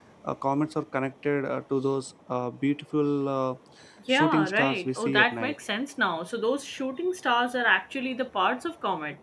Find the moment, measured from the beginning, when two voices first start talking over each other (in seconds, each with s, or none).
4.1 s